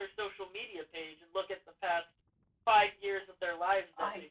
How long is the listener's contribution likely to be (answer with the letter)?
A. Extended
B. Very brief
B